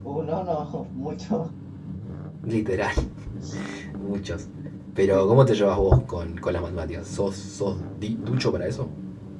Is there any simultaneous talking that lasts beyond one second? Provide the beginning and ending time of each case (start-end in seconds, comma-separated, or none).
none